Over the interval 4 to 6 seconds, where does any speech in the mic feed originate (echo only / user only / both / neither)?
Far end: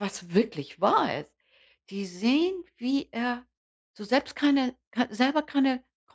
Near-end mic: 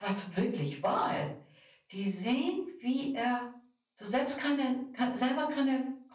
echo only